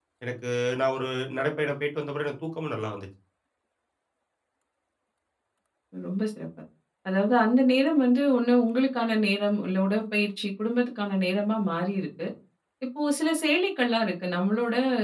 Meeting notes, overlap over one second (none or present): none